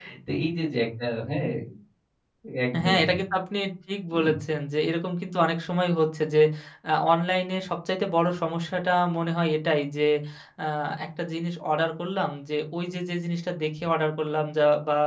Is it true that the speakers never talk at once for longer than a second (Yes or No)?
Yes